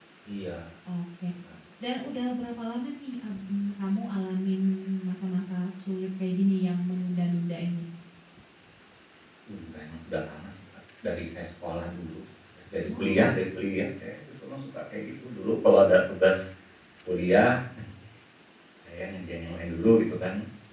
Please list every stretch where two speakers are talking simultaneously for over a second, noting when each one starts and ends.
none

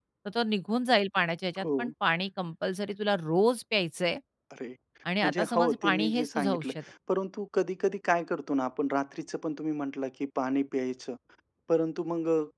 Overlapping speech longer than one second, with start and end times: 5.2-6.8

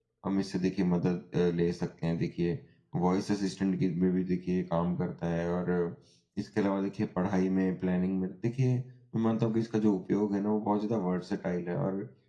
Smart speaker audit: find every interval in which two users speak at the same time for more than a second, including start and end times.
none

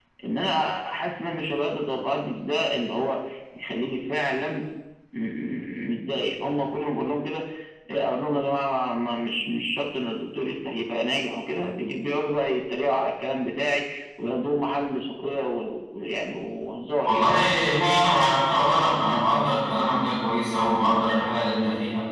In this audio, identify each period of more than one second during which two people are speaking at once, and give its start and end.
none

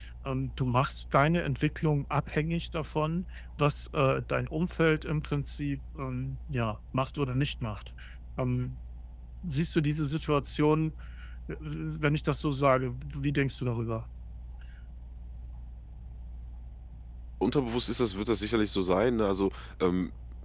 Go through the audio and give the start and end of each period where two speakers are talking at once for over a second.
none

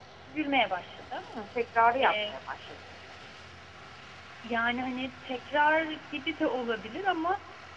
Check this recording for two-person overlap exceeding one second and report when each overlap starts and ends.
none

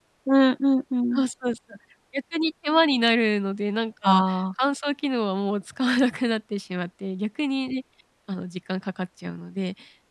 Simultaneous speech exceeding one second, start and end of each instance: none

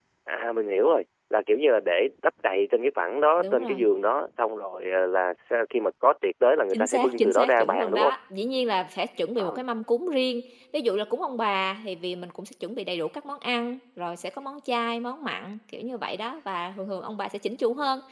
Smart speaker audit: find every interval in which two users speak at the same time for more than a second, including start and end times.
6.7-8.1

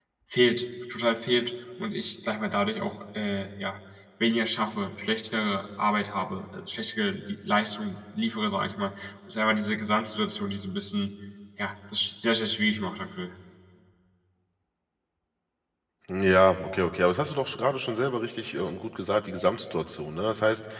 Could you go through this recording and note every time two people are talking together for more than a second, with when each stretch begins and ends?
none

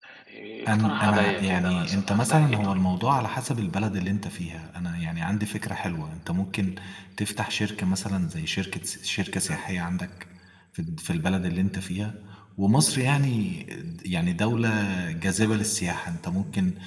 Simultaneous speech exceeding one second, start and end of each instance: 0.7-2.8

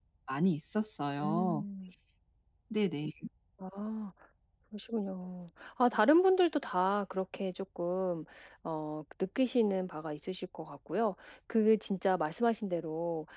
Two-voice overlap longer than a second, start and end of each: none

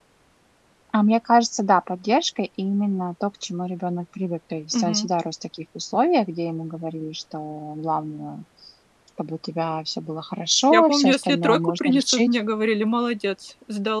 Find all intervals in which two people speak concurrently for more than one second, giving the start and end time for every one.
10.7-12.4

